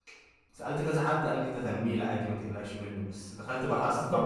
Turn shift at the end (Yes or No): No